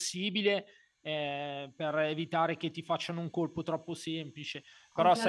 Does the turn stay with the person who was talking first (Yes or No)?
No